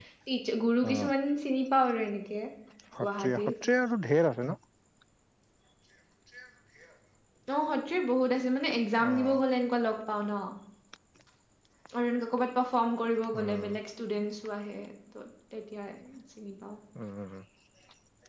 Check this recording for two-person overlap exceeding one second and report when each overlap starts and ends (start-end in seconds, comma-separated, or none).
none